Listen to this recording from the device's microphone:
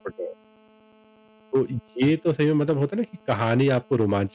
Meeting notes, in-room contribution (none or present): present